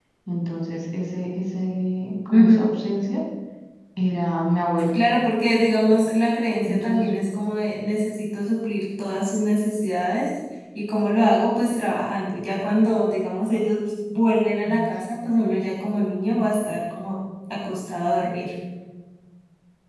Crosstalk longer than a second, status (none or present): none